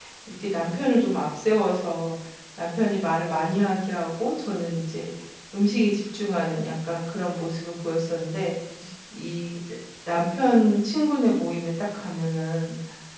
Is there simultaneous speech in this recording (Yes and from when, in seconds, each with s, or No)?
No